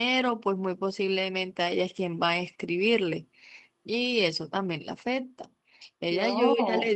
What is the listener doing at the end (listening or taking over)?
listening